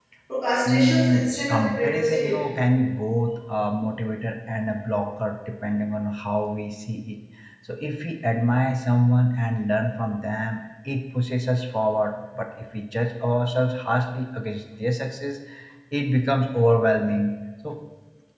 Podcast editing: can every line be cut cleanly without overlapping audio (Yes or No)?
No